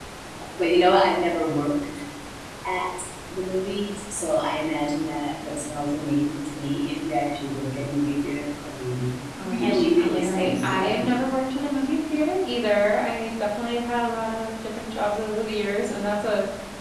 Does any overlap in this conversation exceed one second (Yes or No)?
Yes